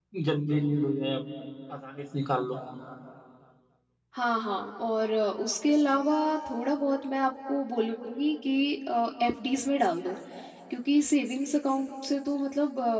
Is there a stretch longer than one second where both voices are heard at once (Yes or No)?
No